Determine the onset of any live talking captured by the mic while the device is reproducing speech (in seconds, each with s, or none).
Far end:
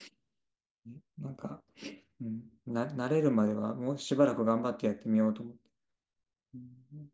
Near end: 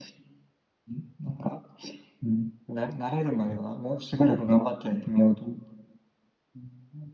none